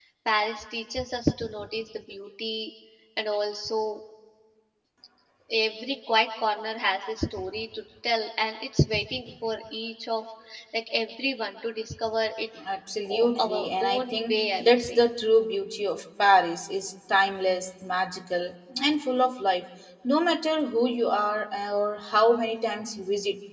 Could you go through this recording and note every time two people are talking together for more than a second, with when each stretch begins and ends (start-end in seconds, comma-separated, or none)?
13.1-15.0